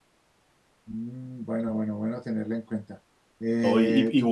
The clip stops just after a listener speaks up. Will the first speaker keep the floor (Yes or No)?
No